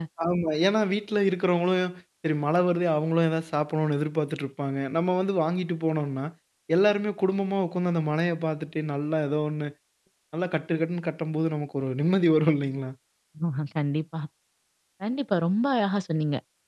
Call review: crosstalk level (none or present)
none